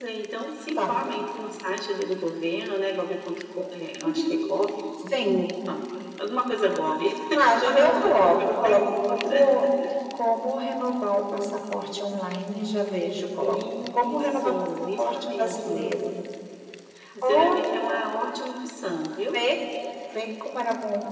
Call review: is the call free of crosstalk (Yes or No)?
No